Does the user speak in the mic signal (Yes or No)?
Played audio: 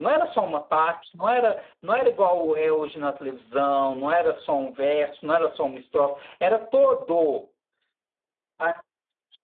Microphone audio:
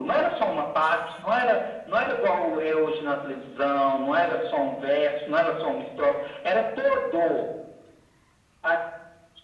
No